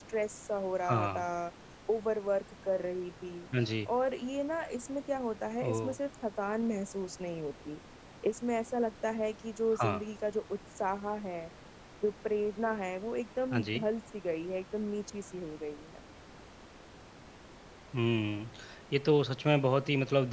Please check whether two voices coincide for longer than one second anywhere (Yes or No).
No